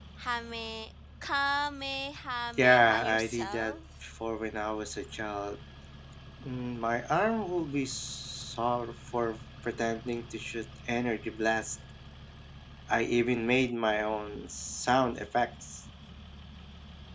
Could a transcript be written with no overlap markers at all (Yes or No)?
No